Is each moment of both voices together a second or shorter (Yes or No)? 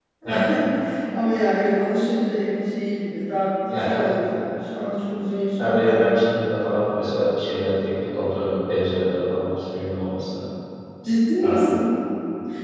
Yes